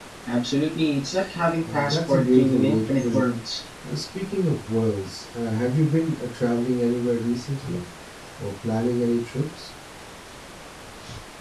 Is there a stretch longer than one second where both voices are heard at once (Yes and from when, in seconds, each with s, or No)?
Yes, from 1.6 s